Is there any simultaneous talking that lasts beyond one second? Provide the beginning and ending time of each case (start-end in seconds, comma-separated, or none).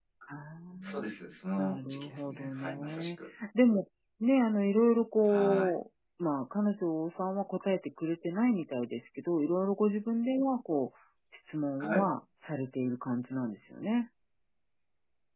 1.6-3.1